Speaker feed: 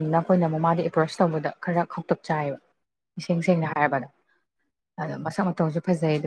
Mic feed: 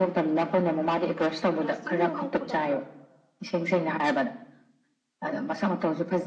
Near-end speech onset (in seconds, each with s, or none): 1.6 s